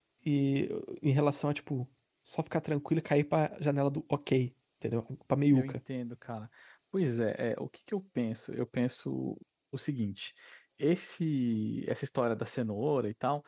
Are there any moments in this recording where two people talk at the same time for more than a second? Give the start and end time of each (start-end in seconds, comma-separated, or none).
none